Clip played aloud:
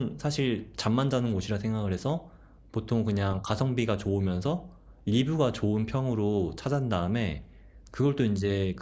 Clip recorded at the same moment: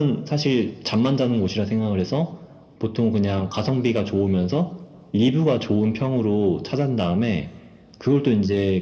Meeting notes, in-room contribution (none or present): none